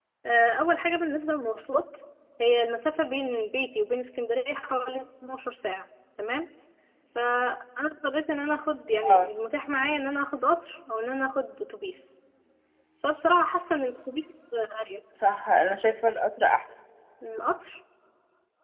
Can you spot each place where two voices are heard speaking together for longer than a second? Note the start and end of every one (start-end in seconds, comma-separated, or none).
none